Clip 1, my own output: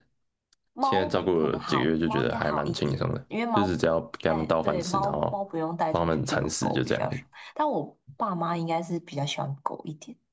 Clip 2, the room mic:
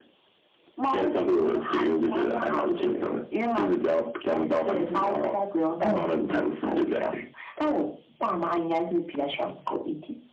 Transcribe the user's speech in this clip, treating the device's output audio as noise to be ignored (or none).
嗯嗯，